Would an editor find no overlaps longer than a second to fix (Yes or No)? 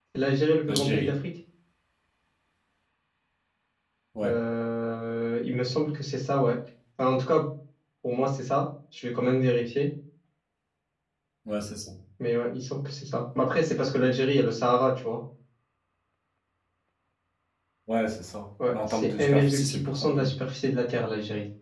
No